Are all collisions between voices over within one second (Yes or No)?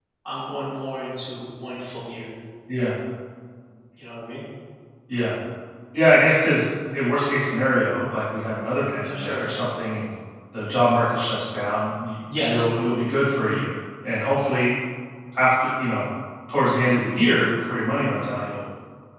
Yes